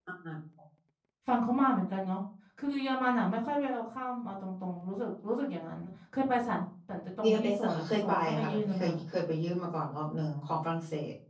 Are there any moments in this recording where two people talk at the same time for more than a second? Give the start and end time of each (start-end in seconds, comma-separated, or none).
7.2-9.0